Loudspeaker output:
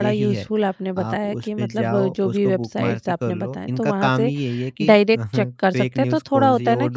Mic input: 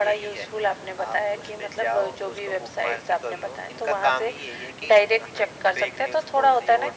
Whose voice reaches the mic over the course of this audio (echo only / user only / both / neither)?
echo only